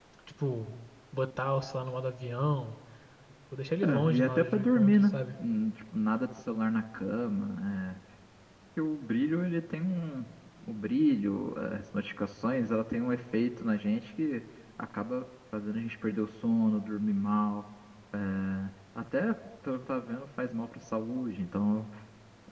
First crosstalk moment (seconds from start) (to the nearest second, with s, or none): 4 s